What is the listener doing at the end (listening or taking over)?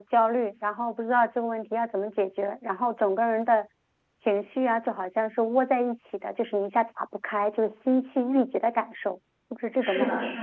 taking over